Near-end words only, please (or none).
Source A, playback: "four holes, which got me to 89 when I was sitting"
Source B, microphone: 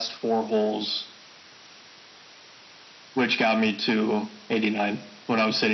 none